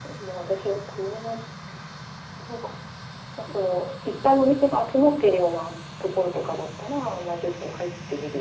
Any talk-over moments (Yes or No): No